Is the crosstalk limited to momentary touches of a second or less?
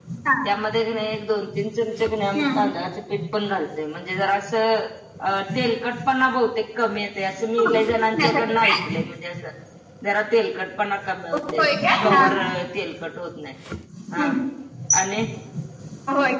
No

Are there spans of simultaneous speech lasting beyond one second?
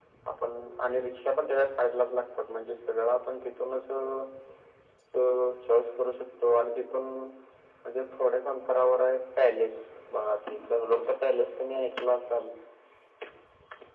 No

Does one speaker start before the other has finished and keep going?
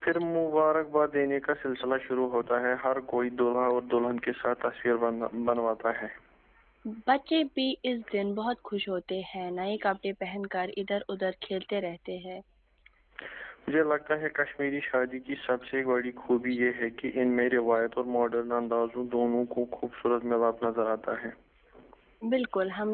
No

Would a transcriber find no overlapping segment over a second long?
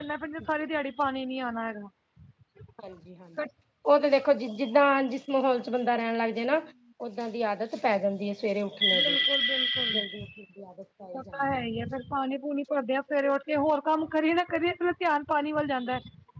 Yes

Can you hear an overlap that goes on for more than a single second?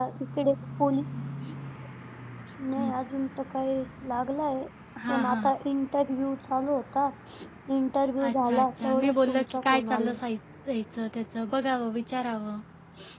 Yes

